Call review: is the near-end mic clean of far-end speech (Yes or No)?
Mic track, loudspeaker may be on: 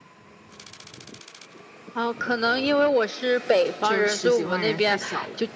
No